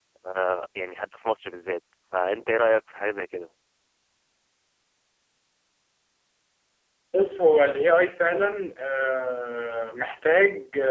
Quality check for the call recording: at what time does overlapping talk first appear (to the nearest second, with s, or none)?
none